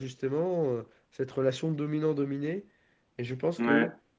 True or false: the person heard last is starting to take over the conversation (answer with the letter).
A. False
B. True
A